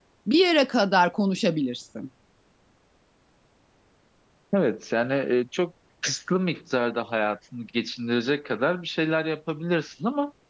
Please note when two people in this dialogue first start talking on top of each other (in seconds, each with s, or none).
none